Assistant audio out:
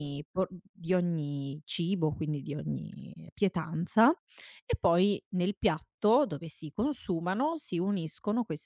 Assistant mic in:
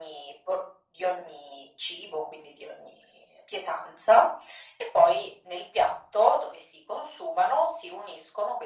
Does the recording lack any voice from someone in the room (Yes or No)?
Yes